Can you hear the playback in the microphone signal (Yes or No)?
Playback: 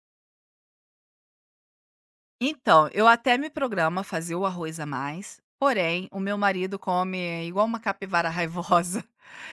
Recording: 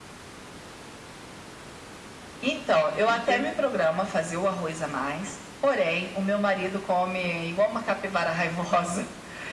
Yes